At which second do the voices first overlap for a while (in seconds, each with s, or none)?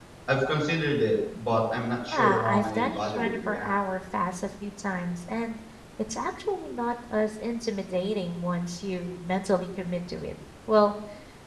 2.1 s